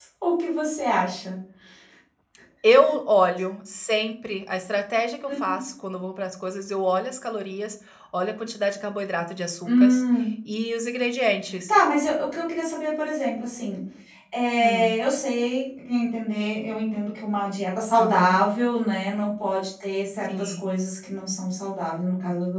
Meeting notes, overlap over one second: none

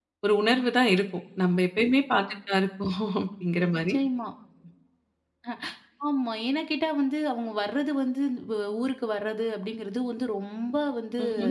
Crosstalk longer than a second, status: none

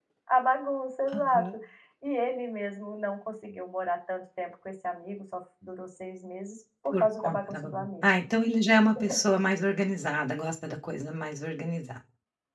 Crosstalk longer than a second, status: present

